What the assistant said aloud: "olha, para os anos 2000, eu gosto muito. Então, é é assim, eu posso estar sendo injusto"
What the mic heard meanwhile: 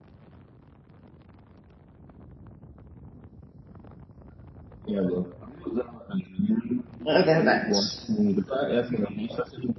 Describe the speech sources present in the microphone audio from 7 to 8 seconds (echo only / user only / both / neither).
both